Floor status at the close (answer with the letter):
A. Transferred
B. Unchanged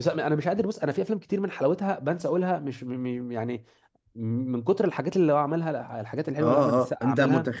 A